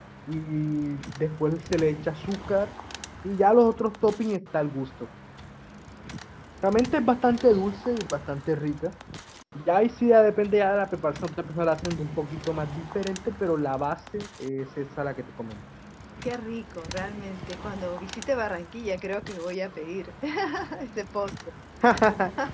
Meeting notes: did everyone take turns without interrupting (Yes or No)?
Yes